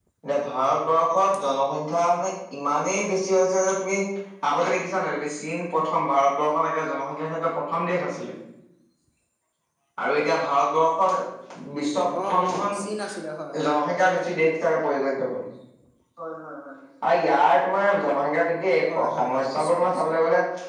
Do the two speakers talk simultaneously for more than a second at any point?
Yes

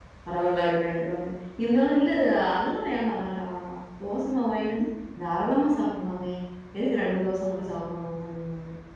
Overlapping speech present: No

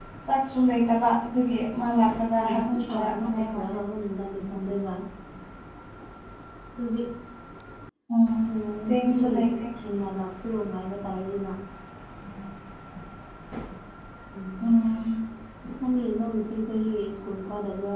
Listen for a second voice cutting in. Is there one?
Yes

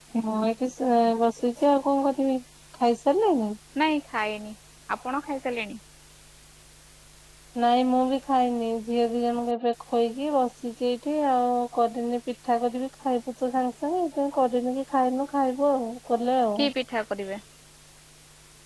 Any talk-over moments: No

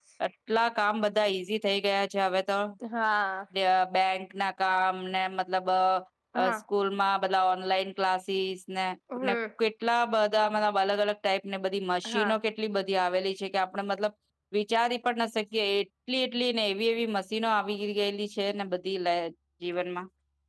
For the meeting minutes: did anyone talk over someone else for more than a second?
No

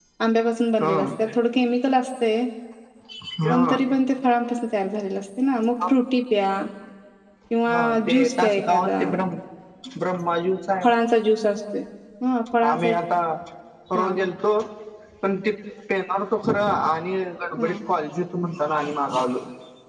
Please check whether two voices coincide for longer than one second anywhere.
Yes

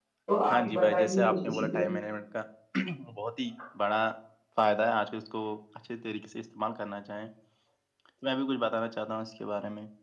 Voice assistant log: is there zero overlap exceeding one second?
No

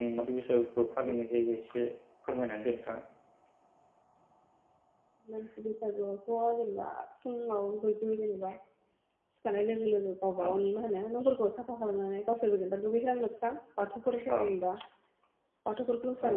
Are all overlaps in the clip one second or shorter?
Yes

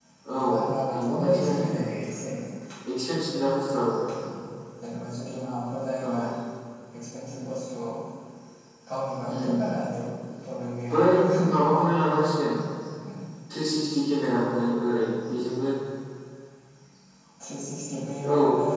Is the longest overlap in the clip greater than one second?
Yes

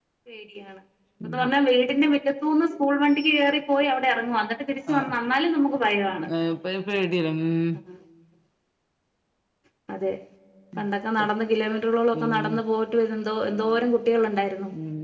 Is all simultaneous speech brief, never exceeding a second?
Yes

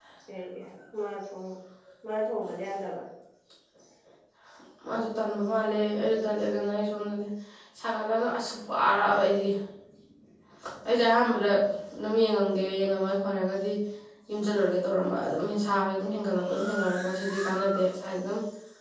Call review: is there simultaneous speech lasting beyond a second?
No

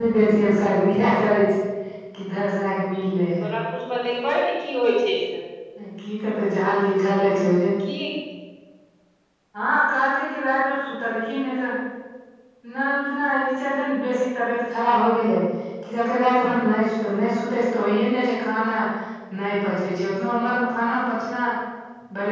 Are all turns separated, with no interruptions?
Yes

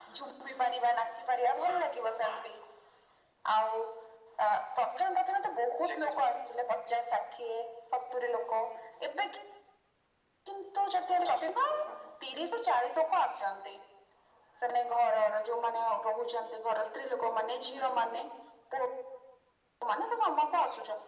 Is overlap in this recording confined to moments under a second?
Yes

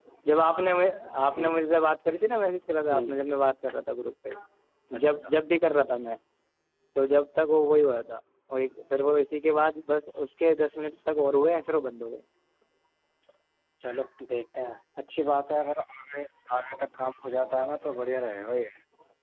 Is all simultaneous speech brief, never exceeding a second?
Yes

